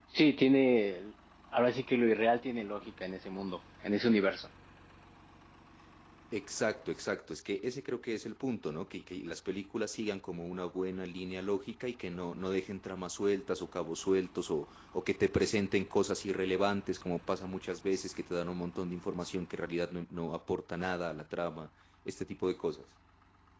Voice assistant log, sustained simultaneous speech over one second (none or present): none